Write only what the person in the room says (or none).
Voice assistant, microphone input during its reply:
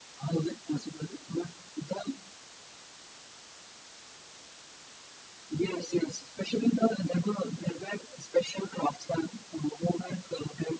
none